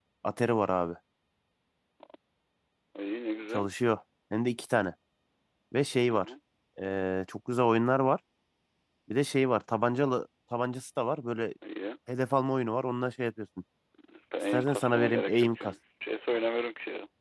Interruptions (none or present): present